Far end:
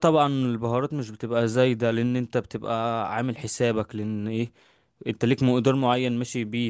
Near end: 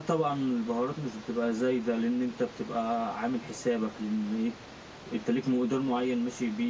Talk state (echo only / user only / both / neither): echo only